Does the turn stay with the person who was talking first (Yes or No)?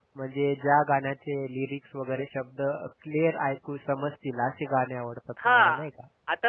No